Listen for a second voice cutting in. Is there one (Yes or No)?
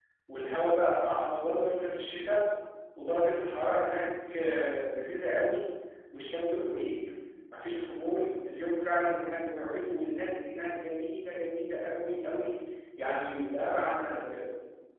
No